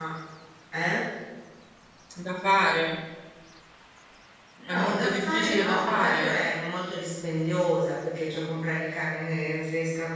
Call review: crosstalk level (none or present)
present